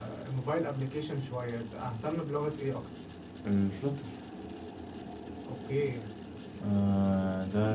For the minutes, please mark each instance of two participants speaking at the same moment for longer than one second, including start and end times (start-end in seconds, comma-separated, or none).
none